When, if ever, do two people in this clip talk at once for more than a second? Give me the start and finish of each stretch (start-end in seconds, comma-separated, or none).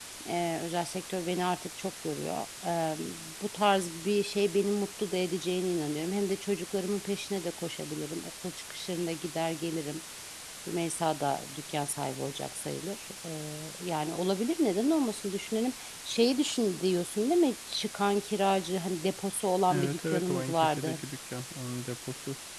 19.7-21.0